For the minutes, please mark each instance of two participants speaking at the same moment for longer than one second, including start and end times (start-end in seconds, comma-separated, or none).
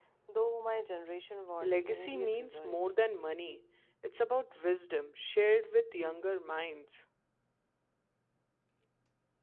1.6-3.0